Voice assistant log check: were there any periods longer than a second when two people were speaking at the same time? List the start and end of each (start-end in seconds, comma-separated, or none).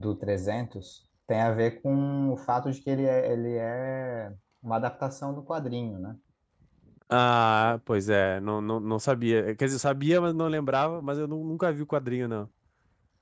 none